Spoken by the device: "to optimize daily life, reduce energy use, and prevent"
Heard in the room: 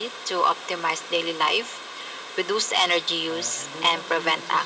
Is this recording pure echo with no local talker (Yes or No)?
No